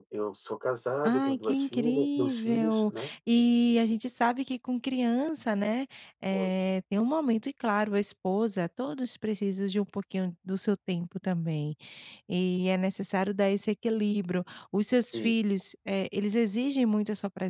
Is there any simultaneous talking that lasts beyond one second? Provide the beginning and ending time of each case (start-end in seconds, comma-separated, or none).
1.1-2.9